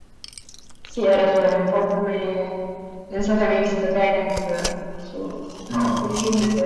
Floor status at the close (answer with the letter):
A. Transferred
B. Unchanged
B